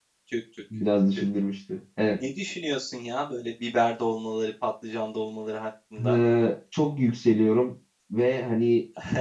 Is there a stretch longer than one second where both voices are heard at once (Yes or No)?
No